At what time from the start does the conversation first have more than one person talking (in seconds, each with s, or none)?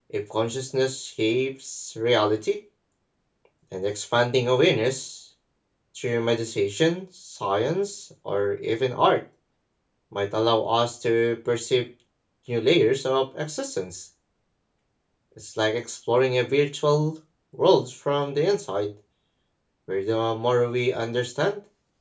none